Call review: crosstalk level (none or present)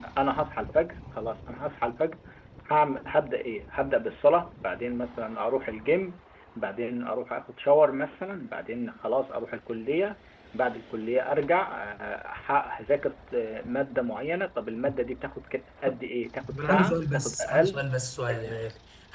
present